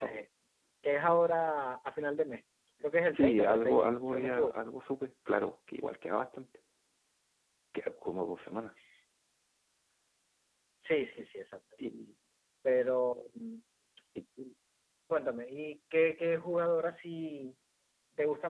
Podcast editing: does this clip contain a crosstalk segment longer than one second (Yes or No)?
Yes